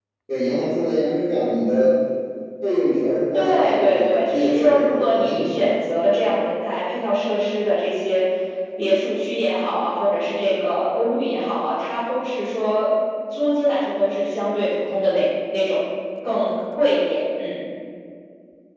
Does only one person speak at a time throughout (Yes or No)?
No